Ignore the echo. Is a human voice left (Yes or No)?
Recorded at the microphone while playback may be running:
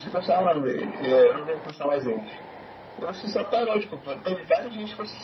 No